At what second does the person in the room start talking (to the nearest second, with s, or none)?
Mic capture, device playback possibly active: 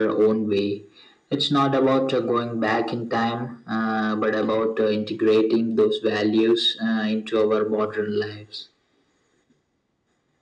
none